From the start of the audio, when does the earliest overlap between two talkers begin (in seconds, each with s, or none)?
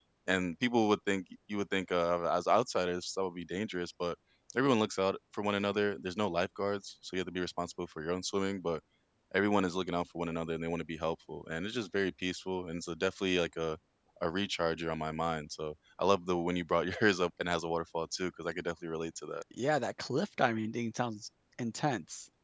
none